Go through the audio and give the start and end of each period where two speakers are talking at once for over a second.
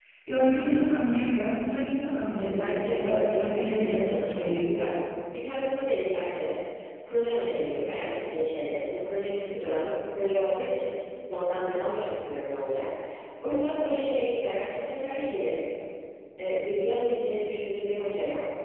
2.4-5.0

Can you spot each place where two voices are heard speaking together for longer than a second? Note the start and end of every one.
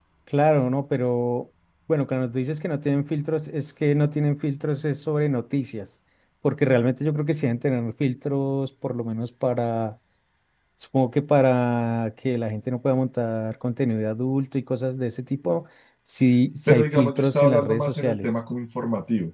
16.7-18.3

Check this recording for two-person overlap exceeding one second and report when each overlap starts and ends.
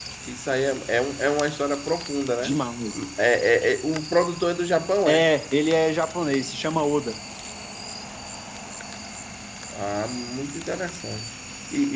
none

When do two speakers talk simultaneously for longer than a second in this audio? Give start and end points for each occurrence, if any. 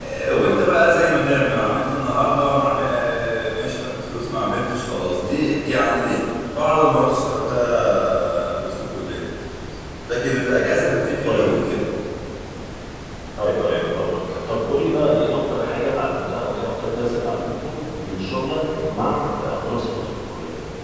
none

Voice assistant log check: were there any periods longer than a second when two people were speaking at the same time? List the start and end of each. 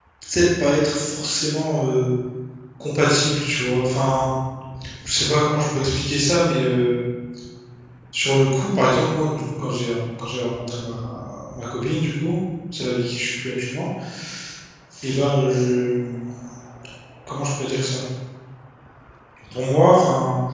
none

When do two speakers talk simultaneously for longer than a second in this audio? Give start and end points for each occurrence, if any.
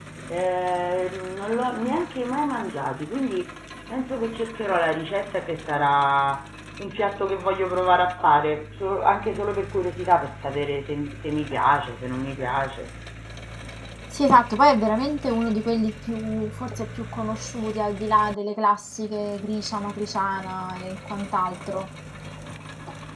none

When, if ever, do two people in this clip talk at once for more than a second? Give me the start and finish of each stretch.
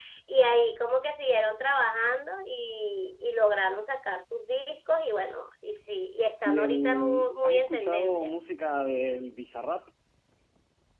6.5-8.3

